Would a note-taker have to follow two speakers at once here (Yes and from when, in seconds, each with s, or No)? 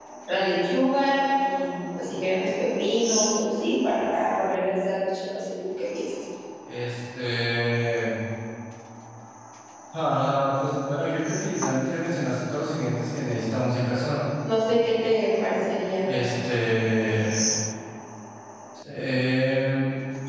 No